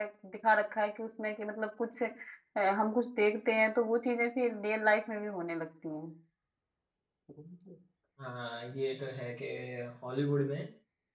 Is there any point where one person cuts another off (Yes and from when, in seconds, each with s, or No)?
No